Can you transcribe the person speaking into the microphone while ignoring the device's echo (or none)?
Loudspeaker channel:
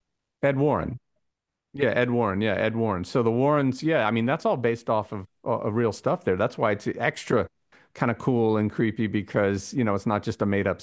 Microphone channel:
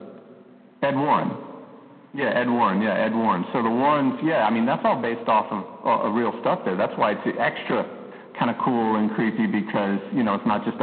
none